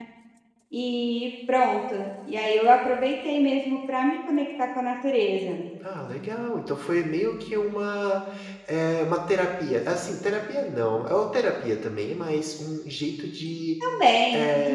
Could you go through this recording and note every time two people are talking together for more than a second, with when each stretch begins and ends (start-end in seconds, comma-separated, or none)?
none